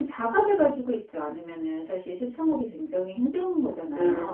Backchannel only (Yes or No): No